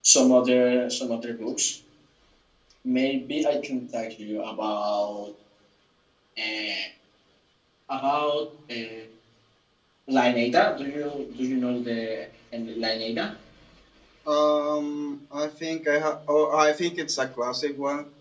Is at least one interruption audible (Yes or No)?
No